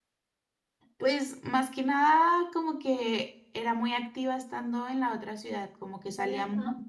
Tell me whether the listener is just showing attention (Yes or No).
Yes